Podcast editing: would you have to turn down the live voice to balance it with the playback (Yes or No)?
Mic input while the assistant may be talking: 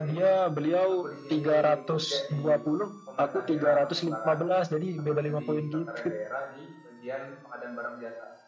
No